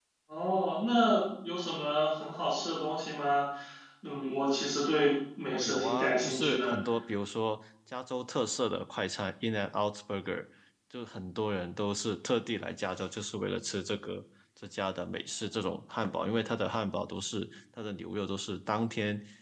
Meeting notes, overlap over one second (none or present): present